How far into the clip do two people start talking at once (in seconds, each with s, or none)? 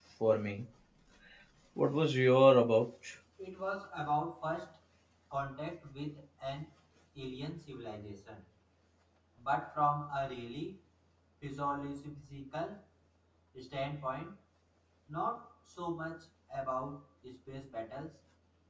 none